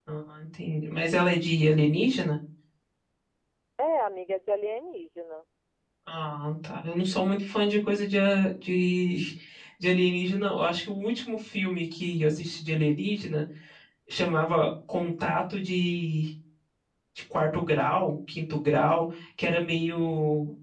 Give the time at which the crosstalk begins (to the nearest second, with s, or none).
none